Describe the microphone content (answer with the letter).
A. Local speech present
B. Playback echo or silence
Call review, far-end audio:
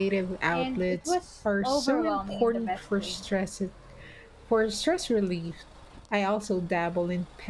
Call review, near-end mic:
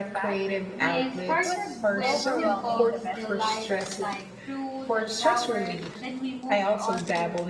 A